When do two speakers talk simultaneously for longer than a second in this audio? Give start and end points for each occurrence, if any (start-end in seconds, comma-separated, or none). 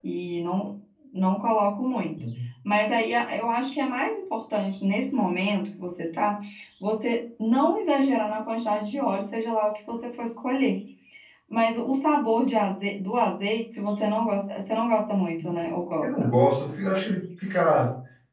none